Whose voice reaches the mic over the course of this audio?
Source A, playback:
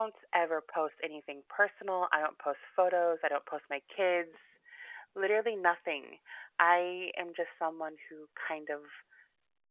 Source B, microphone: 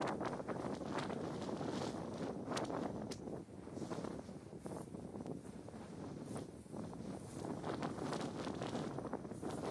neither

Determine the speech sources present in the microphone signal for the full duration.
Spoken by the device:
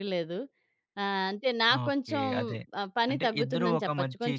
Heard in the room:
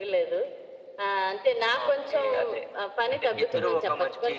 both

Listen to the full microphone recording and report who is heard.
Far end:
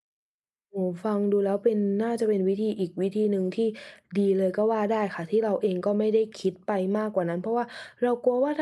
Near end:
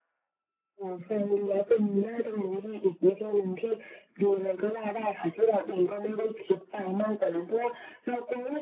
echo only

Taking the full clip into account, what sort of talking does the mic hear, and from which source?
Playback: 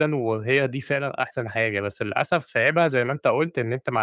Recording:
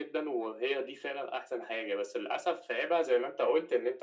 echo only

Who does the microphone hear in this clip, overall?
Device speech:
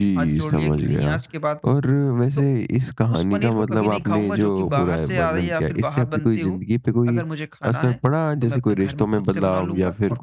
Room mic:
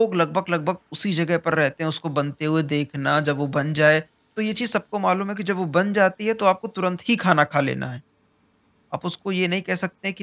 user only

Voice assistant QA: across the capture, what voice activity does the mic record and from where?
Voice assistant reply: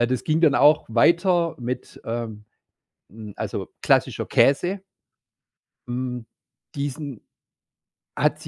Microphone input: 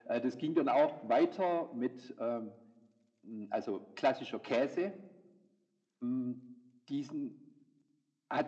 echo only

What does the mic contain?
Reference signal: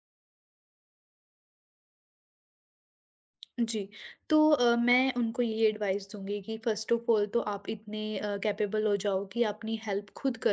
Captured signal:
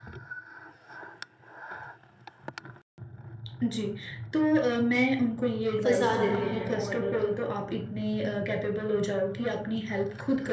both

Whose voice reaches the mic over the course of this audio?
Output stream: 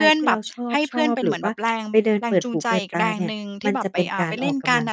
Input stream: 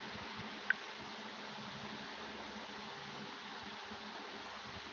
neither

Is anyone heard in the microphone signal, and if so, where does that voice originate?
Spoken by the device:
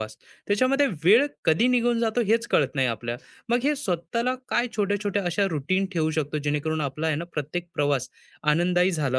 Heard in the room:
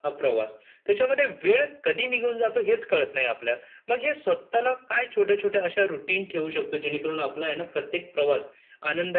echo only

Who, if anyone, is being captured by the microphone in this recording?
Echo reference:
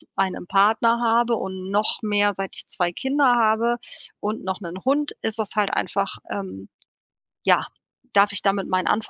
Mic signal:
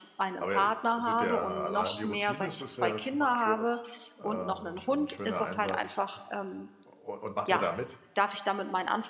both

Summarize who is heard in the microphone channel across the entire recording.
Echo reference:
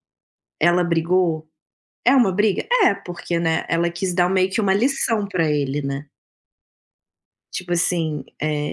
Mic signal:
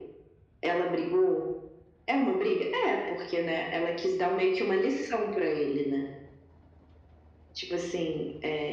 echo only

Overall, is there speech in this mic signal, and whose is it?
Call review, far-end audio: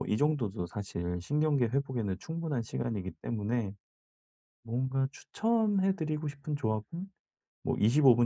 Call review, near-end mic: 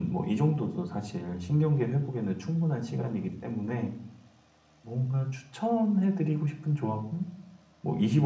echo only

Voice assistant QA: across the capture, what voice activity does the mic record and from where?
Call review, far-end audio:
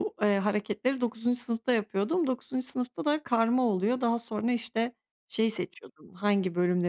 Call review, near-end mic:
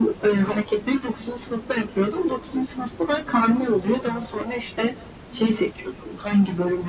echo only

